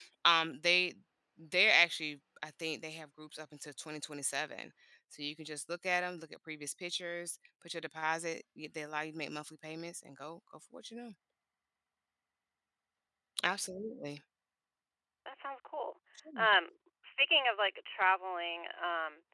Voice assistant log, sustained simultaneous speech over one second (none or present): none